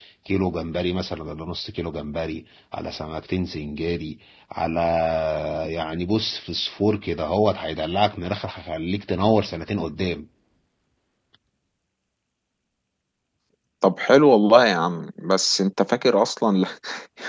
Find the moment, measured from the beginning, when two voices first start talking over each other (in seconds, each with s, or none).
none